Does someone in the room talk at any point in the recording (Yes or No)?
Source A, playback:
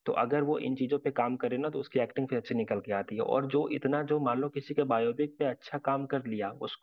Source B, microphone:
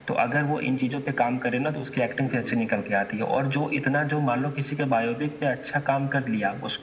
Yes